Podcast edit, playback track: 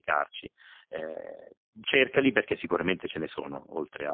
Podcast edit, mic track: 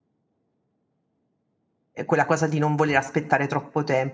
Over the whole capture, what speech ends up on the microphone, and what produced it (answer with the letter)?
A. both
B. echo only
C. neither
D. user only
D